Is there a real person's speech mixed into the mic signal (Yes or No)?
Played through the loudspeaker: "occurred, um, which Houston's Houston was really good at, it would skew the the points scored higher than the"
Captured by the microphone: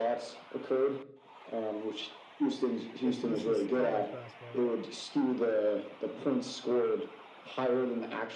Yes